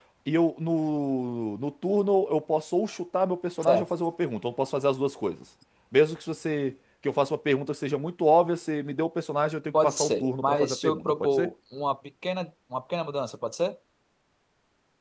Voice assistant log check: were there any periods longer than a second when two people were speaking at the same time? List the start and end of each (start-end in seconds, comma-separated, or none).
9.8-11.5